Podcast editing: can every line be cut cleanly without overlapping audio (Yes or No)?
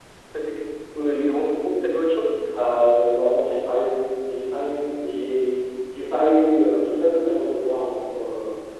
Yes